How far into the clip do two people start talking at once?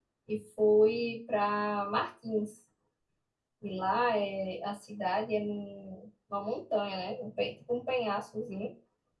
none

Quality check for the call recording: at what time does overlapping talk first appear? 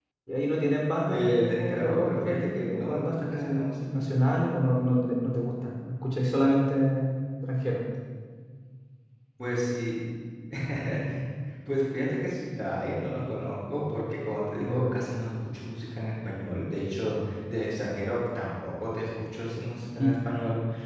1.1 s

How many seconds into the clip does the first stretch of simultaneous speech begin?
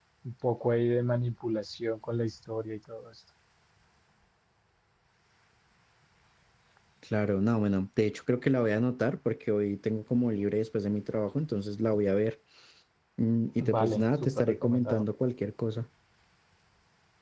13.6 s

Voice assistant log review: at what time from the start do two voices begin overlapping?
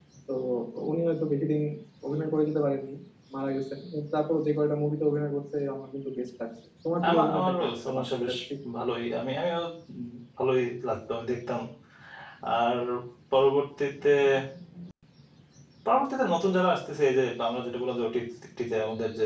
7.0 s

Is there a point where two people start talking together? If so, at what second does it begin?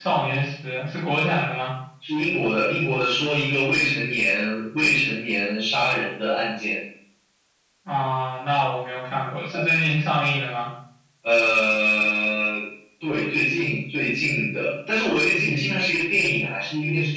none

